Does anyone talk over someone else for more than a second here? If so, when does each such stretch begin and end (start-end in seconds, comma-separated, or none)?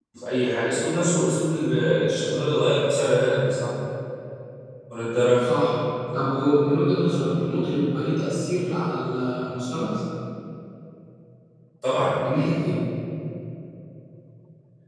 none